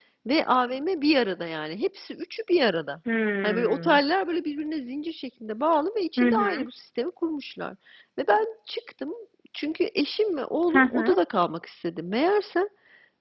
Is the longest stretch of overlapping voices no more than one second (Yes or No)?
Yes